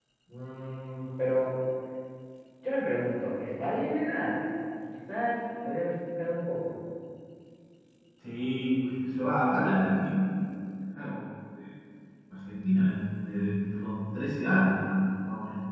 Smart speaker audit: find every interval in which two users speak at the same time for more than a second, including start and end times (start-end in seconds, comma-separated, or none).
none